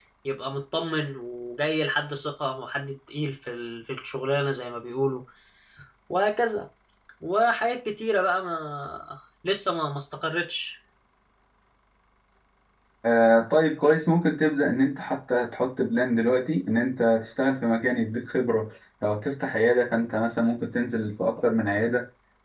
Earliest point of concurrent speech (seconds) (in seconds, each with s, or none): none